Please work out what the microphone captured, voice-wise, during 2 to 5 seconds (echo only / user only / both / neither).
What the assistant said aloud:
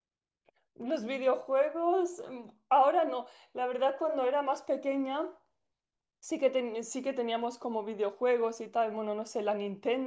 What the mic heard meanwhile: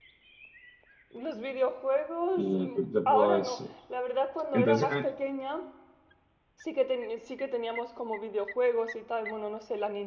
both